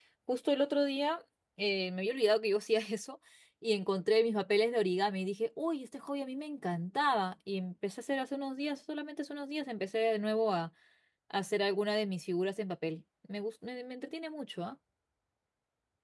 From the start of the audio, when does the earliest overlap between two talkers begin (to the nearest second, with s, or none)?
none